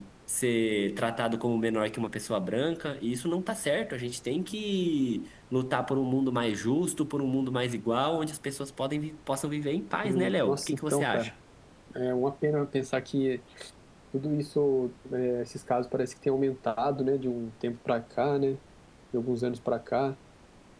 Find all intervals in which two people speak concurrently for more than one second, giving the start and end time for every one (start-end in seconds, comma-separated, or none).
10.0-11.3